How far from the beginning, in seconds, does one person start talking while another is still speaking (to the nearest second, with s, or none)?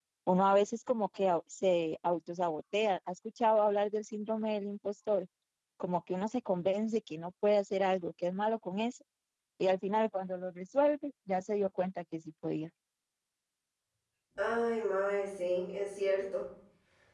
none